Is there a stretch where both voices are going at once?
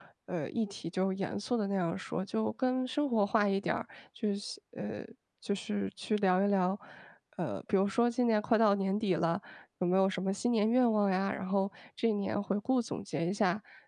No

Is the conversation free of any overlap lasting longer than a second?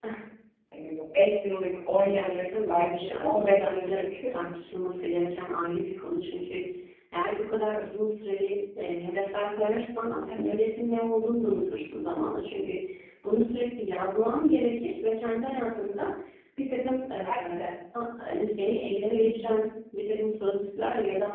No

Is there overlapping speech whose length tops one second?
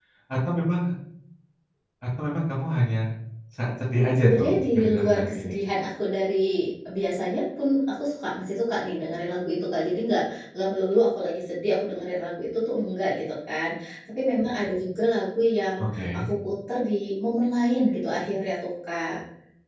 Yes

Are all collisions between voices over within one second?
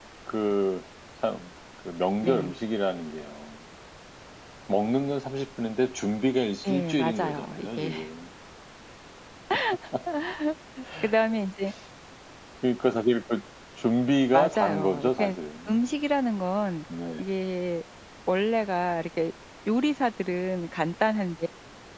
No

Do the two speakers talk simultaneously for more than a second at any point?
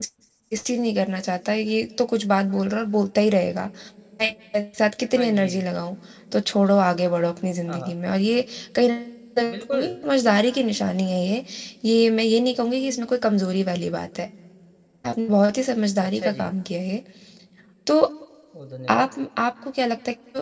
No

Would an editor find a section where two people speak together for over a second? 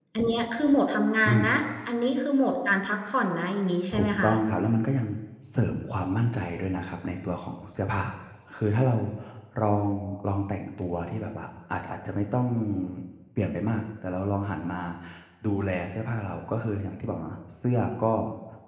No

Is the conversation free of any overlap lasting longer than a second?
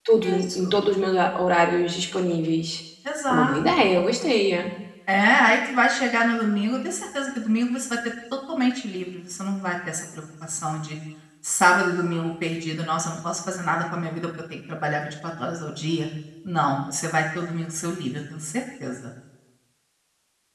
Yes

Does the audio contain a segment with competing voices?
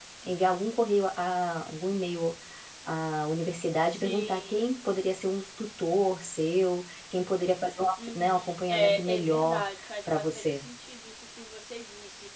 Yes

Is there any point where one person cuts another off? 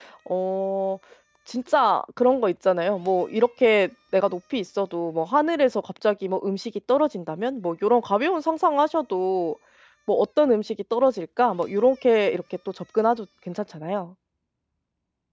No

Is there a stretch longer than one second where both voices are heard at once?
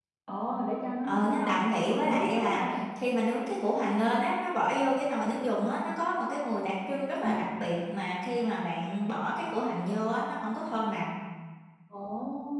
Yes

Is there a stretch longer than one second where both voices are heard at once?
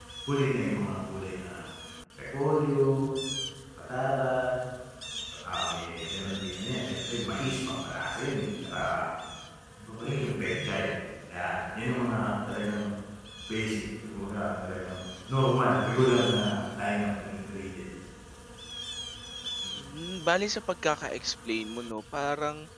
No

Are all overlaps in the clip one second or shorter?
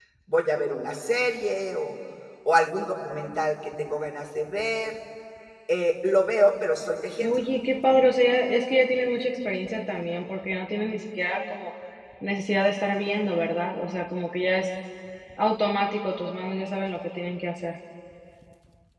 Yes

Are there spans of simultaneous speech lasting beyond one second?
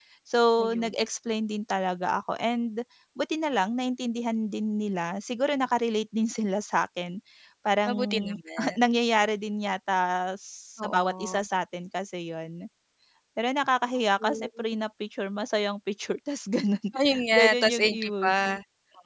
Yes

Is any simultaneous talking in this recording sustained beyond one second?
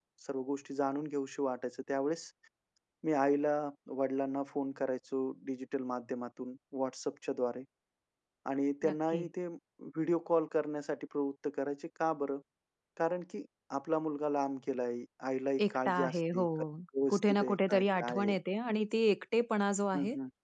Yes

